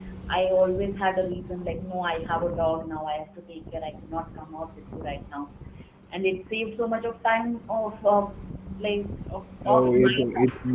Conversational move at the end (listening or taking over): taking over